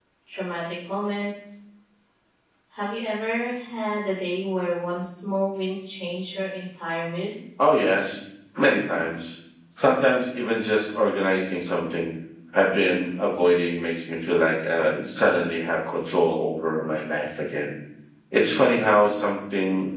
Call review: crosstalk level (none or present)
none